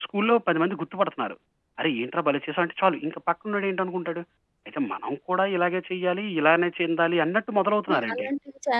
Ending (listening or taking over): taking over